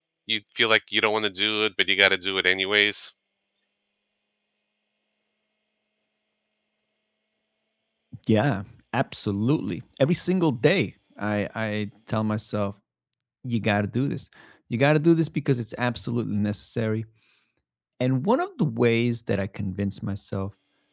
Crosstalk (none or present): none